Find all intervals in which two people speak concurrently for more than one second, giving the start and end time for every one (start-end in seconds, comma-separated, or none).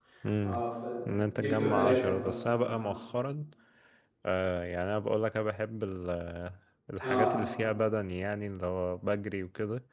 1.5-2.9